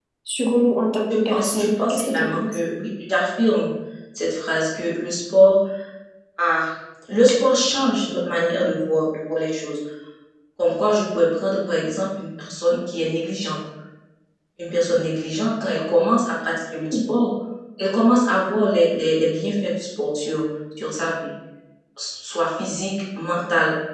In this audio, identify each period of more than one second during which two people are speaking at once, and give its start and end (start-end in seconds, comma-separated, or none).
1.1-2.6